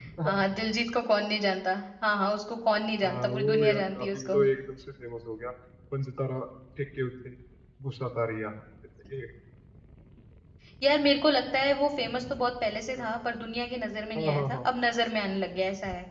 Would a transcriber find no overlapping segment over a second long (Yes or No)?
No